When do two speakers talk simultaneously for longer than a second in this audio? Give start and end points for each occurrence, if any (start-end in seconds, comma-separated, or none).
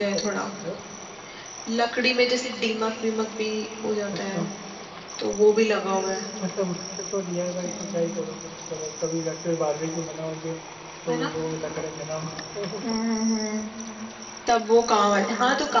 none